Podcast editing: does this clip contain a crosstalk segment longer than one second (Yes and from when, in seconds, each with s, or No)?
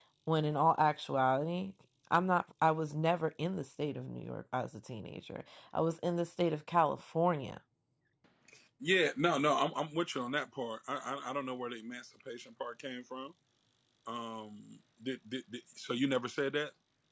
No